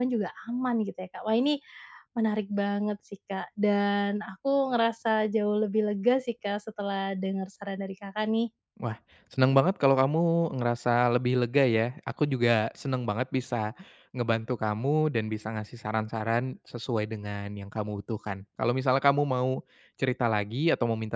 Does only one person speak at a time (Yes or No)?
Yes